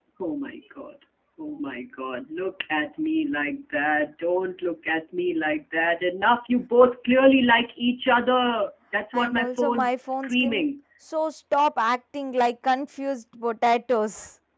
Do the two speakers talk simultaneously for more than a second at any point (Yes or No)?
Yes